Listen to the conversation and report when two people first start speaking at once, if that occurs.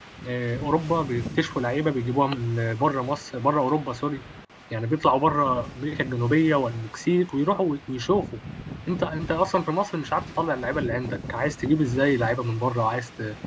none

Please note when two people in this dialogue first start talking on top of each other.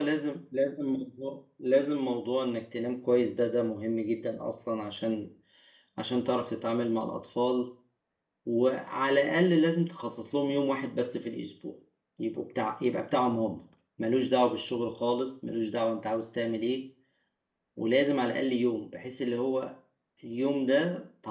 none

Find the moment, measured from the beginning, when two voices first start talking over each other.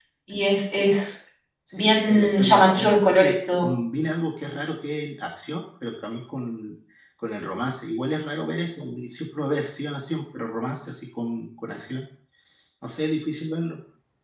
1.7 s

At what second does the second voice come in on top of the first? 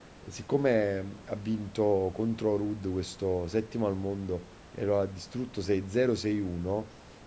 none

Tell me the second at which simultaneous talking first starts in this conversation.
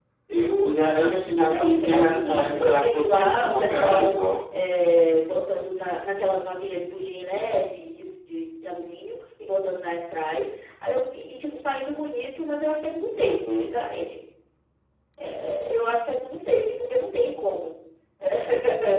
1.5 s

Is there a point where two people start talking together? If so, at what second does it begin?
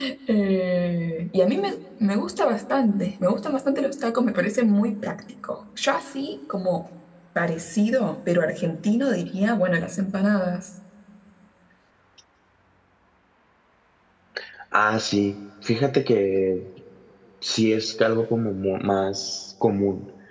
none

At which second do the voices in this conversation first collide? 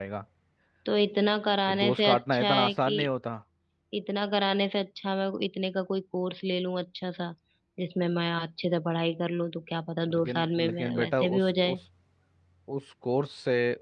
1.7 s

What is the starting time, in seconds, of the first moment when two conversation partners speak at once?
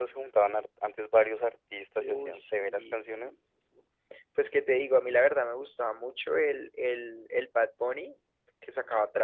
2.0 s

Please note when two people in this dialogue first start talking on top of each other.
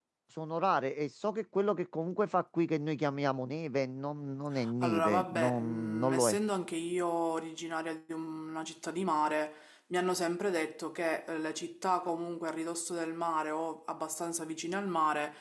4.8 s

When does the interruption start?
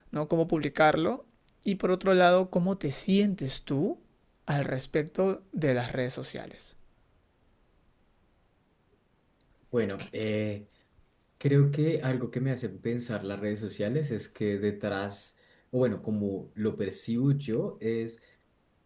none

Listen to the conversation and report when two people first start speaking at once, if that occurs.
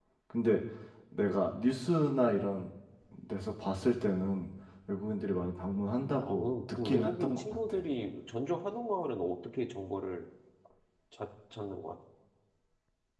6.2 s

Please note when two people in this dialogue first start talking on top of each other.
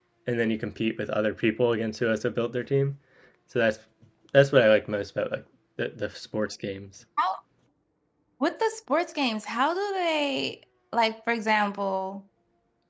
none

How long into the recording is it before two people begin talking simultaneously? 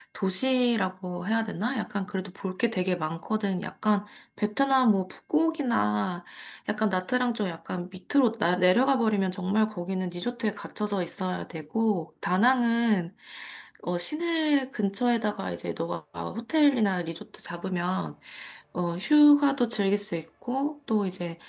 none

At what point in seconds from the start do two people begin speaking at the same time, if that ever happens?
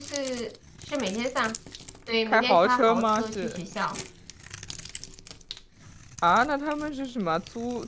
2.3 s

